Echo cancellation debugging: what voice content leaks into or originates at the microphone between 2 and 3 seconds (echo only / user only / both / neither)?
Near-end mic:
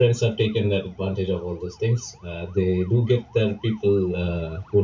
echo only